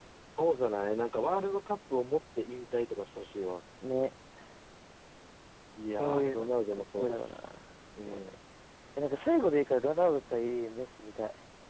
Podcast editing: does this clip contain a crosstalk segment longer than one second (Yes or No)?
Yes